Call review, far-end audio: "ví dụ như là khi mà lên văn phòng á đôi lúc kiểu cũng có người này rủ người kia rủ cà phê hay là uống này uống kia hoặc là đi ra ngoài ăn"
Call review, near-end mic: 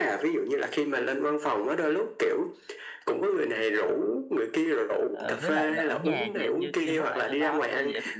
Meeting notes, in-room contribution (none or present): present